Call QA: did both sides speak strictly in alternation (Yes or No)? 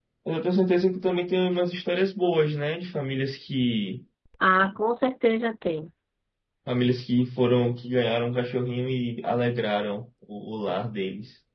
Yes